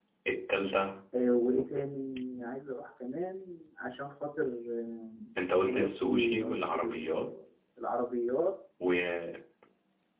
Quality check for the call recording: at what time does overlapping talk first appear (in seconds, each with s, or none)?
5.7 s